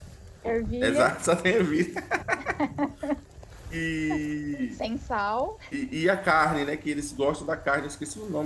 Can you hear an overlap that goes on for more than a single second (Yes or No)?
No